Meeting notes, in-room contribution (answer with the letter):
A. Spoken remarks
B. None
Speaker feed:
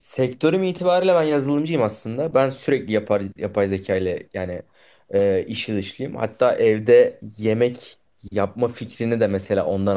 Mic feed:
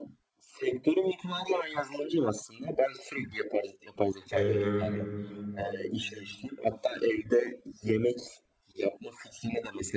A